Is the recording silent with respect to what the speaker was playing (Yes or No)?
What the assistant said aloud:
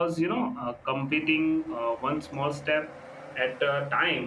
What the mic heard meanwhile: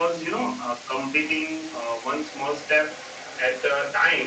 No